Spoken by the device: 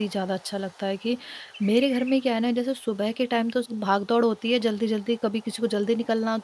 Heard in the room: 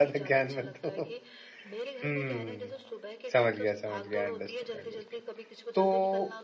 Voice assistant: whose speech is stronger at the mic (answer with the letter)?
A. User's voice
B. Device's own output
A